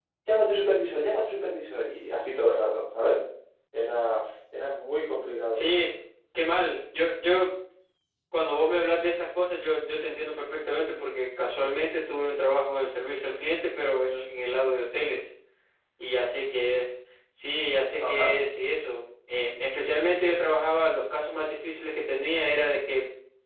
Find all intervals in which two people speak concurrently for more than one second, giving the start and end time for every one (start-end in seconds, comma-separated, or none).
none